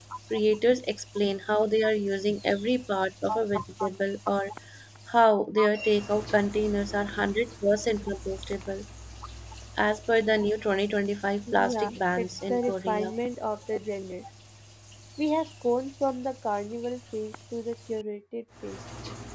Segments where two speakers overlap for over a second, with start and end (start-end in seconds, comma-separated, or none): 11.5-13.1